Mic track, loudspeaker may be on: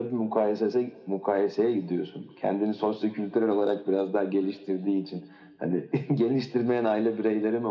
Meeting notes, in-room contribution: none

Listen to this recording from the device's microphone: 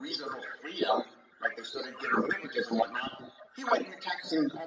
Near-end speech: none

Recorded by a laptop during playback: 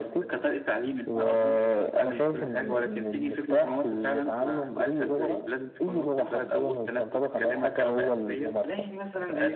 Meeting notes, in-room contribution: present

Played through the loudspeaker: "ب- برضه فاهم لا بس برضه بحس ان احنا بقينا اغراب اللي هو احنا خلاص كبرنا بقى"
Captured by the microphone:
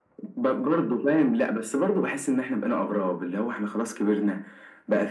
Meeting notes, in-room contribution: none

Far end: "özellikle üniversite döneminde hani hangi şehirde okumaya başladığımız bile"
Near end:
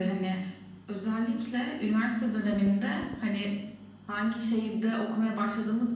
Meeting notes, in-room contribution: none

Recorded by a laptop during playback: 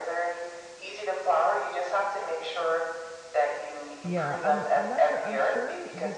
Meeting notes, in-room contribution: present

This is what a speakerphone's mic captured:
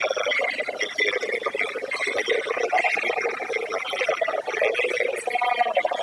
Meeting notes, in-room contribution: none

